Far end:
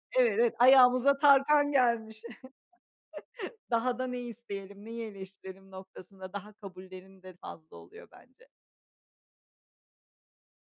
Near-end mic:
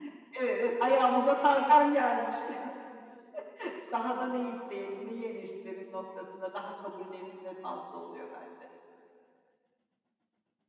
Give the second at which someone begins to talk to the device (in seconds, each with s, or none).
none